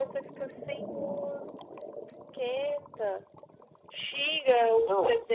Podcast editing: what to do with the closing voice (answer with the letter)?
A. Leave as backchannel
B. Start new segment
A